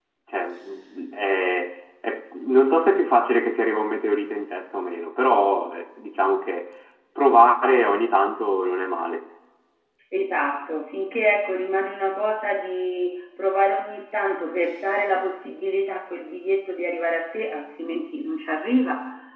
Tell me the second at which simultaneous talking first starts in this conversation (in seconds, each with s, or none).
none